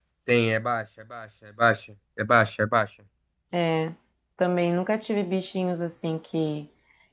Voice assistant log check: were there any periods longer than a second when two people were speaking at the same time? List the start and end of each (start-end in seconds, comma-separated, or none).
none